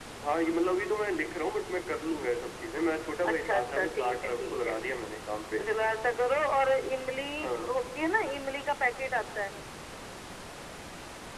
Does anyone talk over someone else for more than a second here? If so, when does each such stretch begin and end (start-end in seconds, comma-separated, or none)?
3.2-4.8